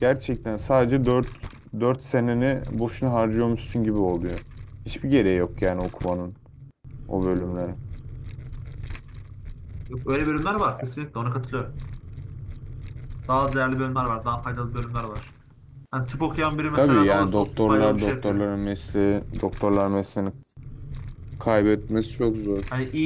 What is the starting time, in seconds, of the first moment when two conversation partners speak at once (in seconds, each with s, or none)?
16.8 s